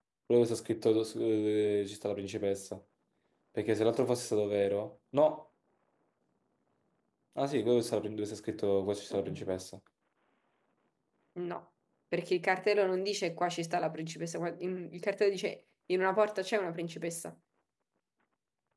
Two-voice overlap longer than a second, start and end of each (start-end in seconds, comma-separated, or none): none